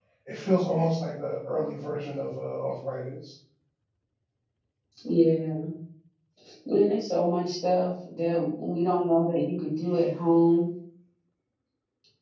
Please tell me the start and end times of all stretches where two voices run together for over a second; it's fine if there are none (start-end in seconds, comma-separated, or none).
none